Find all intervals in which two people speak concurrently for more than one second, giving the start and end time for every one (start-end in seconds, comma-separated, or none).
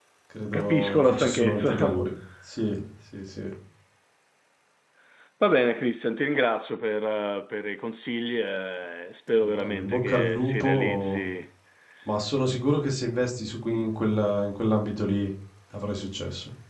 0.5-2.0, 9.4-11.2